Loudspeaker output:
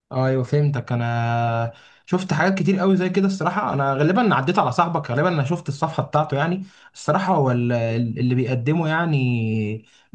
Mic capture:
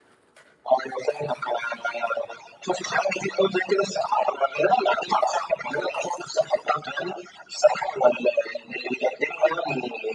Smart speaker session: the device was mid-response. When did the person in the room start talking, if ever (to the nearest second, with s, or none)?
none